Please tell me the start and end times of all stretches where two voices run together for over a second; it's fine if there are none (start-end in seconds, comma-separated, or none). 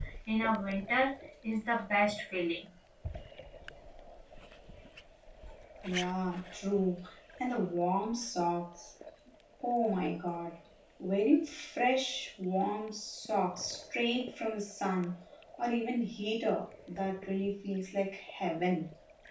none